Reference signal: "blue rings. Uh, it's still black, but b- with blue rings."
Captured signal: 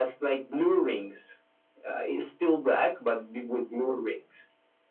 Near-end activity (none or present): none